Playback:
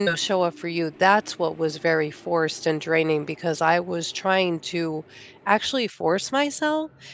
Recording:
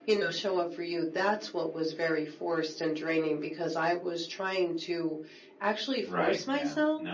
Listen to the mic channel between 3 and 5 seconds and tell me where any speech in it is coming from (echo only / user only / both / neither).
echo only